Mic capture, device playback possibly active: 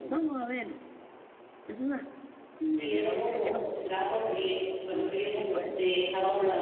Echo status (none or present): present